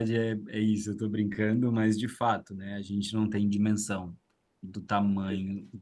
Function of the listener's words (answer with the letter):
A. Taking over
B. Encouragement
B